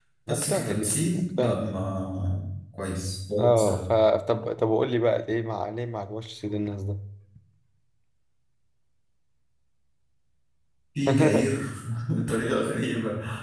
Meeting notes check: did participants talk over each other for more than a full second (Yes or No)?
Yes